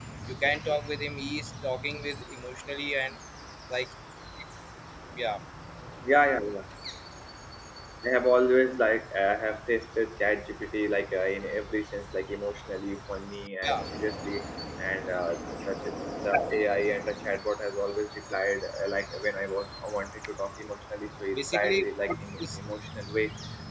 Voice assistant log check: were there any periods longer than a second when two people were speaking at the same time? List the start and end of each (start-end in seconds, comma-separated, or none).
21.3-22.6